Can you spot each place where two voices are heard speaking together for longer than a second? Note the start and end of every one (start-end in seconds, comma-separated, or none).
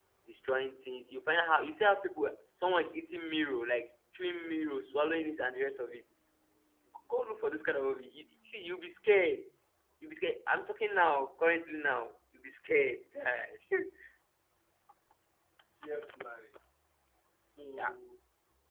none